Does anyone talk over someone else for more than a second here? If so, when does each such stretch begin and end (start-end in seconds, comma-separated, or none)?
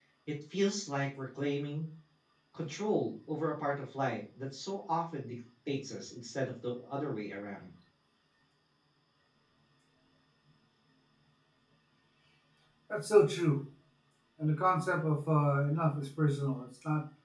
none